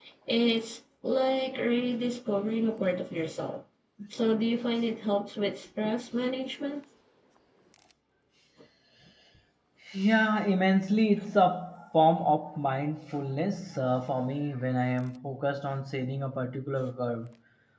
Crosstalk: none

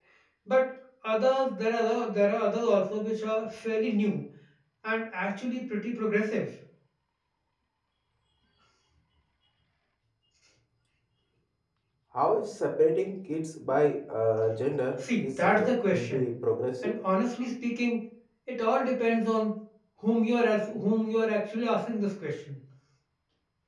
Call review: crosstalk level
present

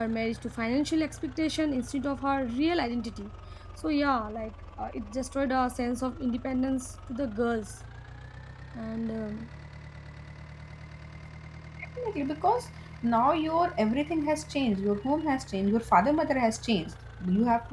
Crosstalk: none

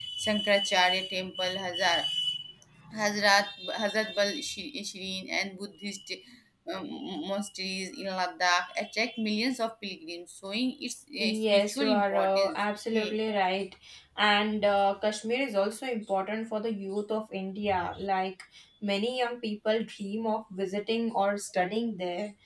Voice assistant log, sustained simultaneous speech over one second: present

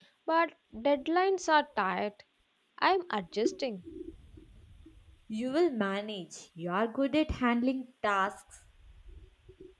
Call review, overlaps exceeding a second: none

